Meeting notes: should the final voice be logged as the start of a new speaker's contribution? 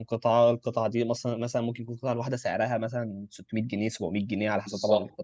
Yes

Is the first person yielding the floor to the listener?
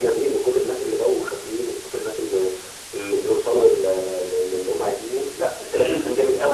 Yes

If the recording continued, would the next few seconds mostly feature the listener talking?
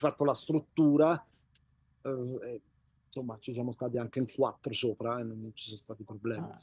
Yes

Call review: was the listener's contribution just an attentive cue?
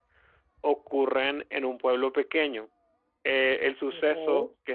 Yes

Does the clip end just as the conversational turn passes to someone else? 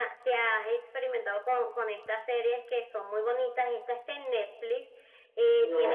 Yes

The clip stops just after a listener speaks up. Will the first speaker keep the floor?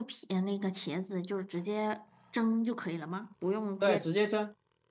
No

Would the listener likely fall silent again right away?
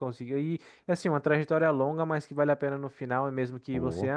Yes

